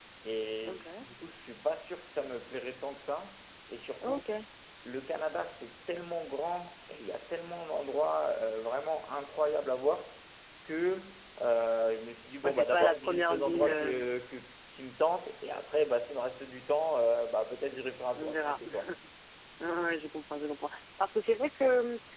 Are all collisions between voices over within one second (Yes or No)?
No